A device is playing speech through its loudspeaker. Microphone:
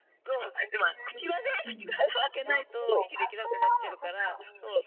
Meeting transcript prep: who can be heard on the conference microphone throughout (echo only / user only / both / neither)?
both